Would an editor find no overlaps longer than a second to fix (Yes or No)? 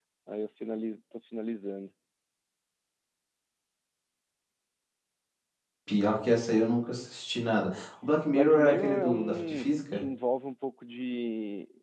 No